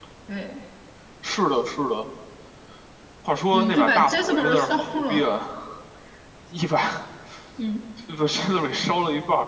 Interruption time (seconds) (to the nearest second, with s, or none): 4 s